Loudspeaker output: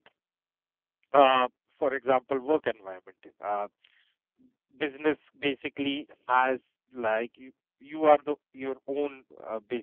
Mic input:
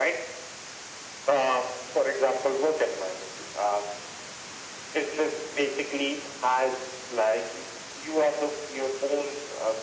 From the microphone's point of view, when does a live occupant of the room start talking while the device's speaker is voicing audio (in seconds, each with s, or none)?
none